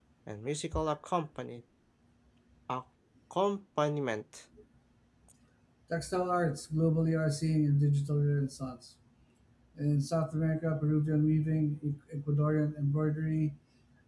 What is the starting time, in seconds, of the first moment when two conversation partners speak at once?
none

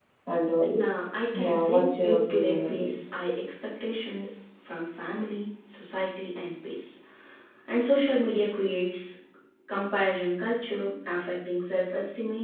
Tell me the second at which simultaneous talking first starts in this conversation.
1 s

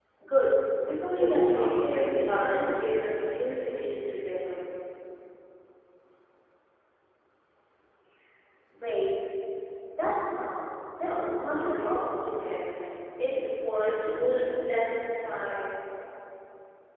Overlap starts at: 1 s

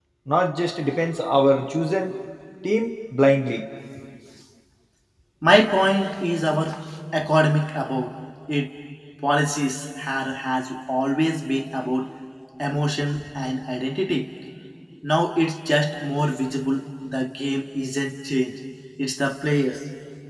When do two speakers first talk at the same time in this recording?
none

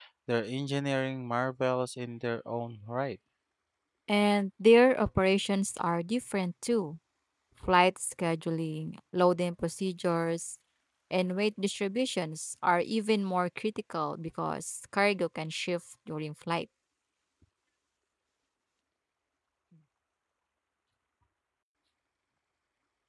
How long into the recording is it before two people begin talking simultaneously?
none

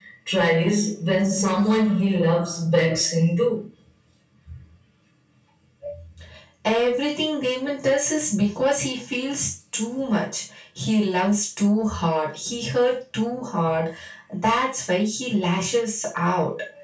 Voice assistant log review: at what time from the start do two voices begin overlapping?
none

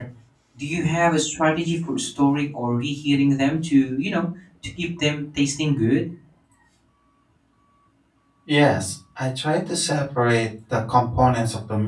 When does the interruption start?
none

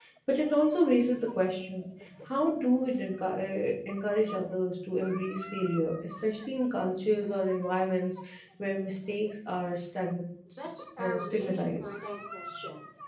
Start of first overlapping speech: 11 s

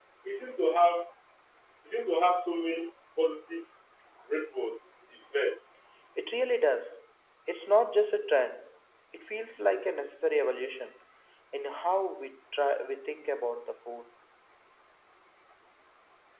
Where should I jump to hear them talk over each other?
none

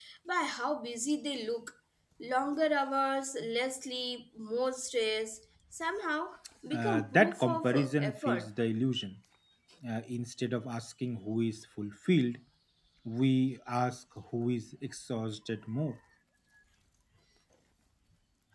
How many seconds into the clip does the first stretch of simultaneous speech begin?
7 s

